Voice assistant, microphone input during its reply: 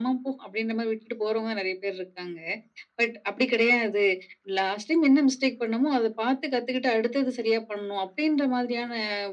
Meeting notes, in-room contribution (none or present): none